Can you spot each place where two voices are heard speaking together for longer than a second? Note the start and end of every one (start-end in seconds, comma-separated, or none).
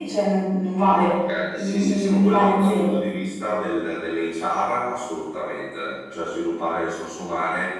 1.5-3.0